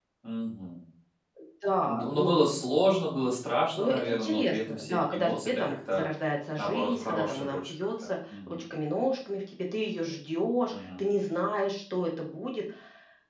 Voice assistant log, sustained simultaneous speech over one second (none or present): present